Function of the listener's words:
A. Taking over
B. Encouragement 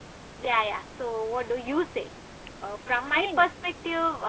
B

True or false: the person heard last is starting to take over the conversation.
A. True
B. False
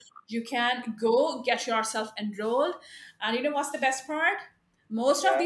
B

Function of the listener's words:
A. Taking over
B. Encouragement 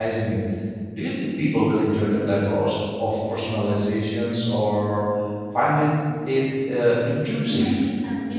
A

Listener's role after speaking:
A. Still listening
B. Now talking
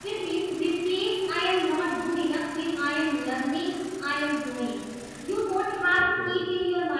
A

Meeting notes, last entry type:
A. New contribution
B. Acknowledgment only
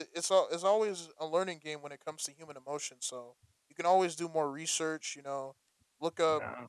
B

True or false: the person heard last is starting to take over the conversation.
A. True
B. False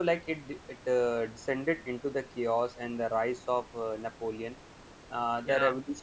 B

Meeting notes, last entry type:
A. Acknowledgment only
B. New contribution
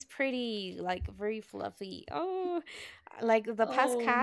A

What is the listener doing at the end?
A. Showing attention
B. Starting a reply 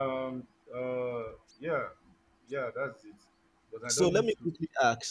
B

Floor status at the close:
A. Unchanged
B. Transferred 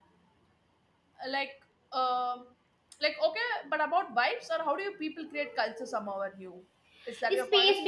B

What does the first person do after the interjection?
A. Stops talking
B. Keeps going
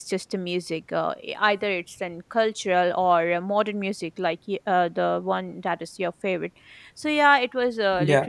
B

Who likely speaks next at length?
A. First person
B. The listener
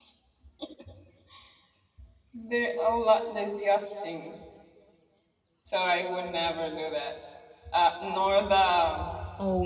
B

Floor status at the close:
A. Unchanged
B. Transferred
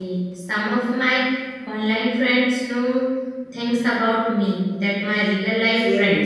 B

